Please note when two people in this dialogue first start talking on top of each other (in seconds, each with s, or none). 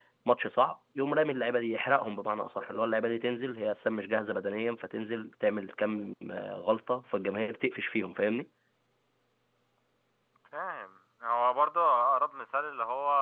none